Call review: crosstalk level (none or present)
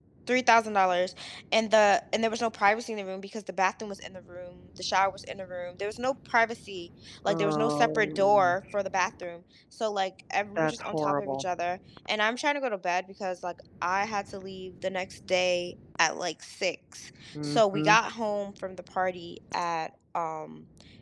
present